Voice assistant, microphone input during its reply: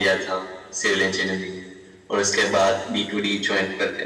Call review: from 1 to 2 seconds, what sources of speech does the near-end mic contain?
echo only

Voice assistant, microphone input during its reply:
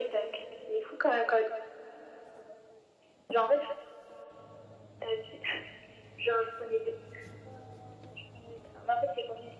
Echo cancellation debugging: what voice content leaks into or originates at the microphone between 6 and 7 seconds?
echo only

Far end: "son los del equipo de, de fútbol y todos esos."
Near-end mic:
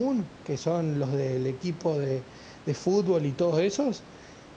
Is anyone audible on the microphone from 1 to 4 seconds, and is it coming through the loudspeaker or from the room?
echo only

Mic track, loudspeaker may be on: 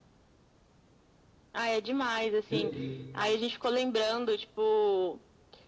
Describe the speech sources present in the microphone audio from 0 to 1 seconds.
neither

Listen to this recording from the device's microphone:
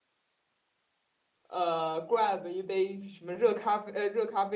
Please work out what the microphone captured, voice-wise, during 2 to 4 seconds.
user only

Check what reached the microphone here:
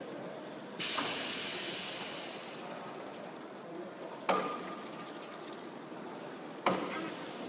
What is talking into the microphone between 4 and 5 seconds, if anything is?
neither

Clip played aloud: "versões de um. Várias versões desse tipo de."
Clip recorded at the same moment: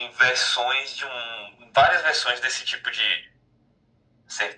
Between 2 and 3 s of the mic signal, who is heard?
echo only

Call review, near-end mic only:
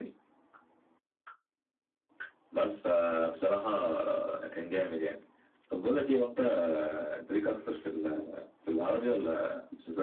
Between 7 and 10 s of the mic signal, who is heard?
echo only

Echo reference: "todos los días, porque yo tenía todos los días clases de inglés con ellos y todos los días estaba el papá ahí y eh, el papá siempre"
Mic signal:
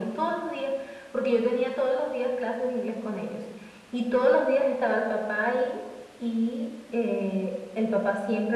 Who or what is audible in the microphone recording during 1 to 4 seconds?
echo only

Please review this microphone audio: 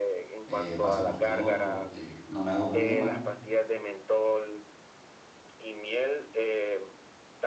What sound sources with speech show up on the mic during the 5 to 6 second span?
echo only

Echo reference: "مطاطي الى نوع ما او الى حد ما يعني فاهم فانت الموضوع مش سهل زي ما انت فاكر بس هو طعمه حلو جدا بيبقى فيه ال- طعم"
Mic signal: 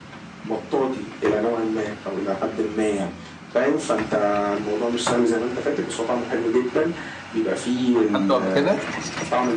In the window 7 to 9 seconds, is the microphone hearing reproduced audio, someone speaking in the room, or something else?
both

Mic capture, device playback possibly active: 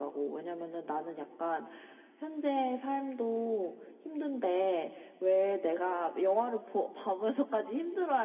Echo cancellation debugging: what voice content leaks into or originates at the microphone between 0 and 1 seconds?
echo only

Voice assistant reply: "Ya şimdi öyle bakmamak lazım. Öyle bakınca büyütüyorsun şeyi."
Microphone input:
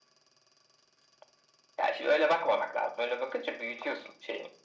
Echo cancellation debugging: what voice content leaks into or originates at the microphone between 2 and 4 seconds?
echo only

